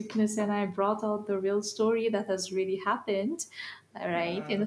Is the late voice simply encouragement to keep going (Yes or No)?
Yes